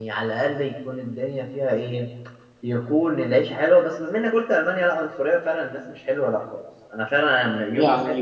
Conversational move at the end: taking over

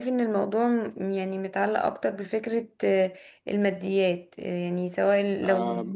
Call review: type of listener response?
listening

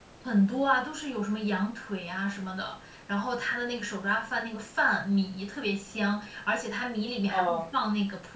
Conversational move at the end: listening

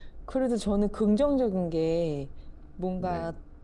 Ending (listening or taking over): listening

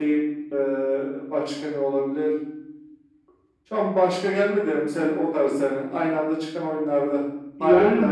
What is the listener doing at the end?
taking over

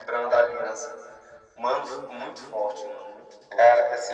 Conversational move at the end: listening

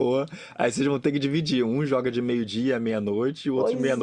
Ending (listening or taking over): taking over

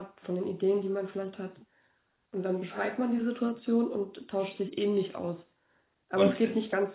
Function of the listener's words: listening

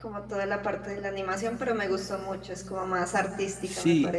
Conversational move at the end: taking over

